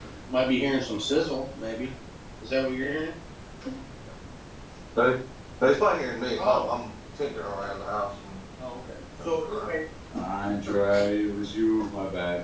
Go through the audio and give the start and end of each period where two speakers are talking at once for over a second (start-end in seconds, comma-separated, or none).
none